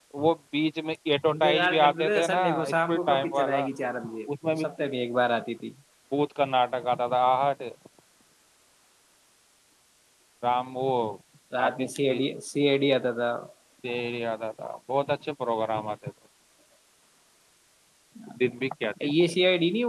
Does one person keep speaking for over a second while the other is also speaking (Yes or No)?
Yes